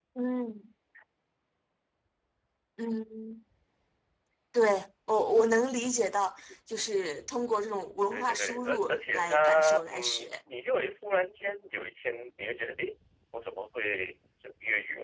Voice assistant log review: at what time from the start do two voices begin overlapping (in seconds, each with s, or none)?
8.1 s